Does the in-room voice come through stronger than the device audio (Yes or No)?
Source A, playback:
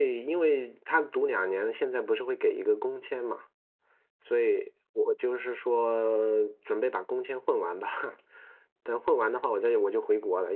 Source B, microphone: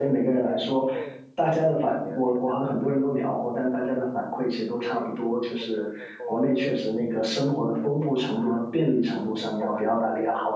Yes